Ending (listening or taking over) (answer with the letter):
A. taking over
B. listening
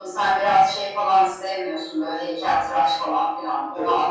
B